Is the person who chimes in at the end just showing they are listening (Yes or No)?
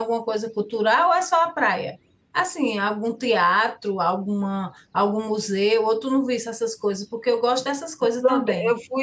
No